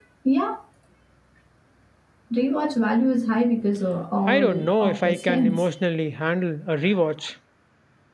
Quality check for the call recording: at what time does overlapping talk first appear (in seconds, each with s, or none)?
4.3 s